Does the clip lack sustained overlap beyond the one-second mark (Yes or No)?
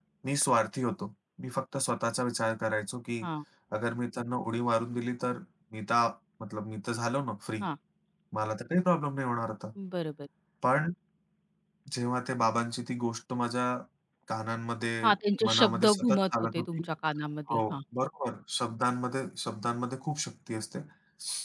No